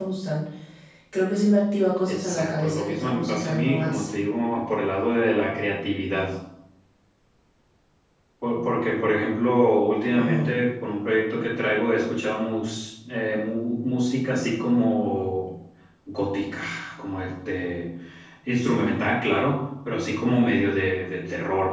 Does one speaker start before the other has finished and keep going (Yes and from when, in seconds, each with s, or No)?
Yes, from 2.1 s